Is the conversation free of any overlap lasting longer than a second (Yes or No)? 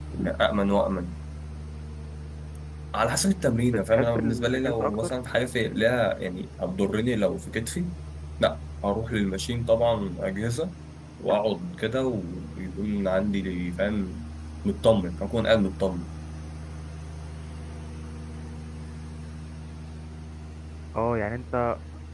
No